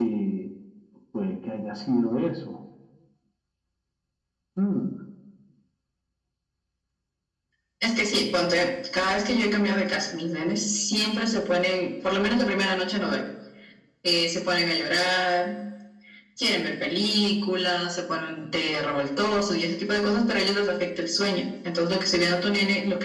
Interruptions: none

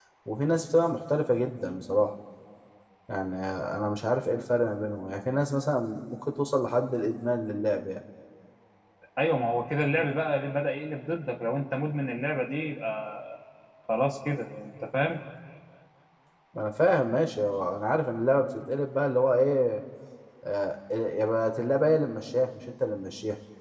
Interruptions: none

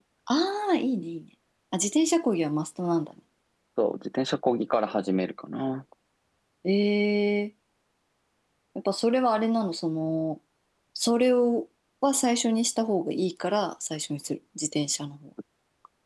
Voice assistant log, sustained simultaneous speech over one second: none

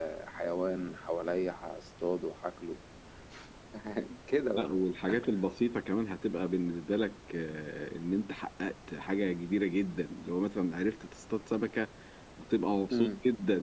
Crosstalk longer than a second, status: none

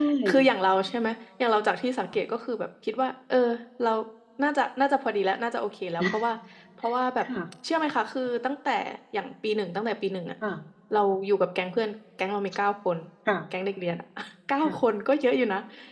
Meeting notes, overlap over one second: none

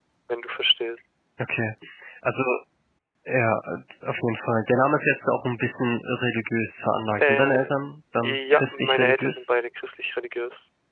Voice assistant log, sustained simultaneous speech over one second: present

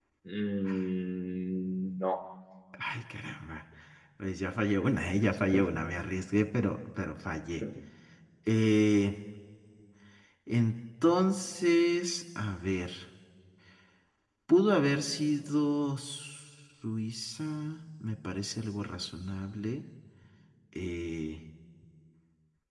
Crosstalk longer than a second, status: none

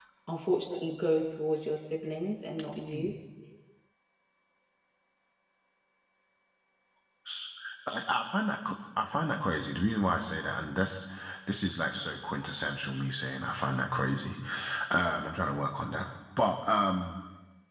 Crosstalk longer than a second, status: none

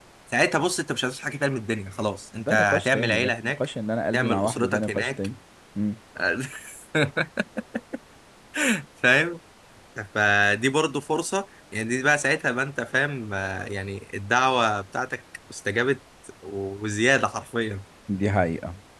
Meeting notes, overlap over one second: present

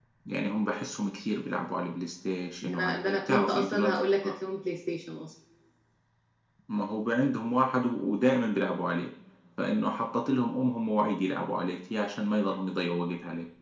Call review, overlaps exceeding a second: present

